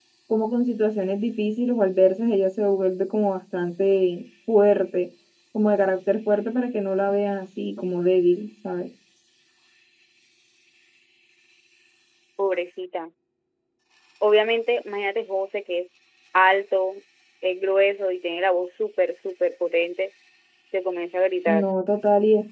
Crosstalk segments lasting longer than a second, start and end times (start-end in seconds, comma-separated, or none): none